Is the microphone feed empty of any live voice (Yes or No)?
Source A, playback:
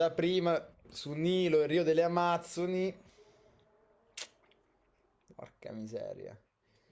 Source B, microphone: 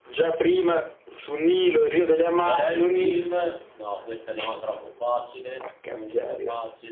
No